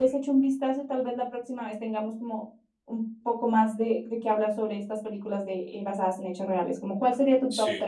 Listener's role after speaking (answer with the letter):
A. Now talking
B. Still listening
A